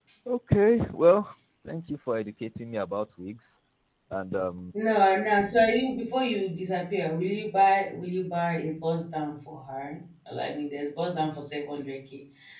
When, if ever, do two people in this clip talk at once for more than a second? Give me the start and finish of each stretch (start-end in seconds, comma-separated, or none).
none